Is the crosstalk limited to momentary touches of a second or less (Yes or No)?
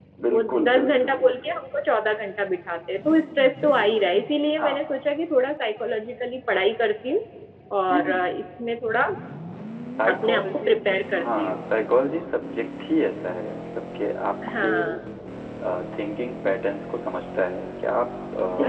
No